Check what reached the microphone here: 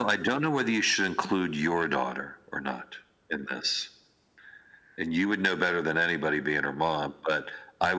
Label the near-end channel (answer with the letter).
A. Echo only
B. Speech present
A